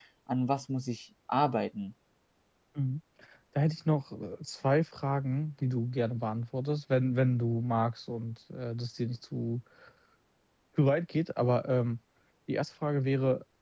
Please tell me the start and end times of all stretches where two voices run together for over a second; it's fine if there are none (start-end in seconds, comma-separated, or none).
none